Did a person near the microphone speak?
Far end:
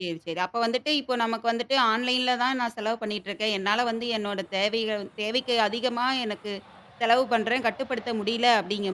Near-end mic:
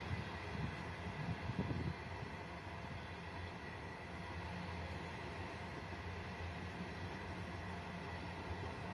No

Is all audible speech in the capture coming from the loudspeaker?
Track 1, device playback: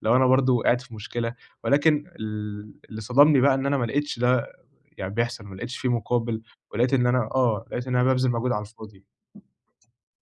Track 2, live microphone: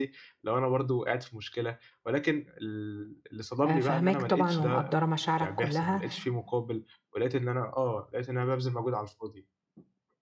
No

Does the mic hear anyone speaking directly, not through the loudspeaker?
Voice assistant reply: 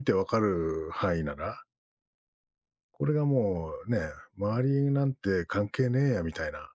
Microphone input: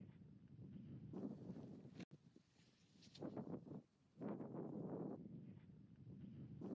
No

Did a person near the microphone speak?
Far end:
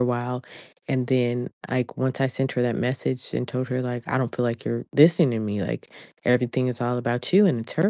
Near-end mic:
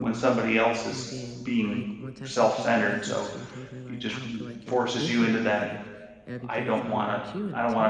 Yes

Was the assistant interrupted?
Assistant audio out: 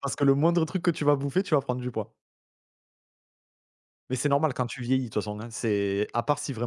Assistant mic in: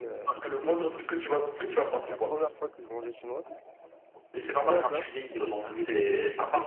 Yes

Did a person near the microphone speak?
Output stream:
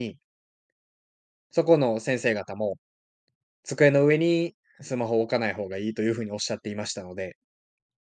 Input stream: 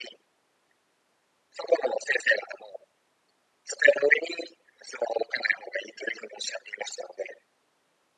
No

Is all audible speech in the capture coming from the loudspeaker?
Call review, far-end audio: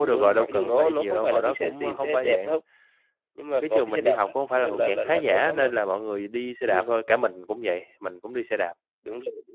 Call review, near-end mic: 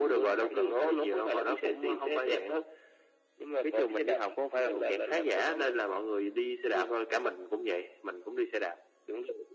Yes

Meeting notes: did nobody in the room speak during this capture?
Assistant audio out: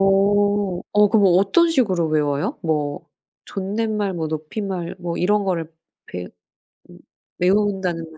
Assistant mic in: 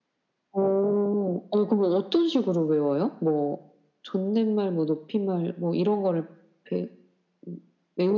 Yes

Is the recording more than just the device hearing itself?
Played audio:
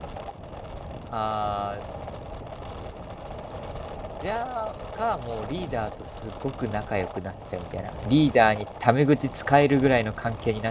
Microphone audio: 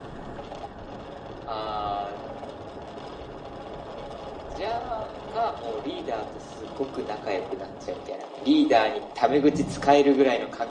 No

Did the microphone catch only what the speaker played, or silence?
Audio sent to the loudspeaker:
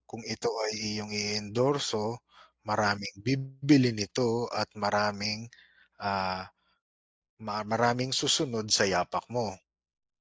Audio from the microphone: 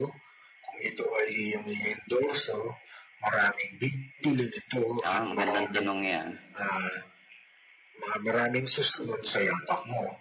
No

